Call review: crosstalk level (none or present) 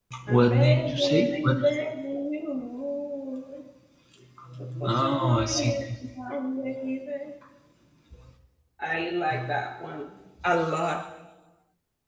present